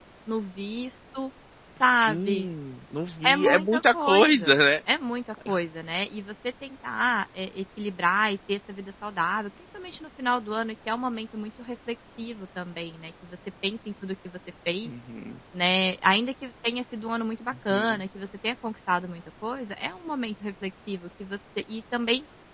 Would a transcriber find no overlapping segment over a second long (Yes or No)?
No